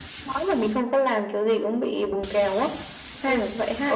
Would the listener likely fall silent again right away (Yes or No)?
No